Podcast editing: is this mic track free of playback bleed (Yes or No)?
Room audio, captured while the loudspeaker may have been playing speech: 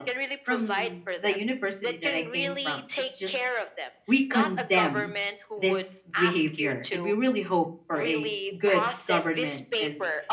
No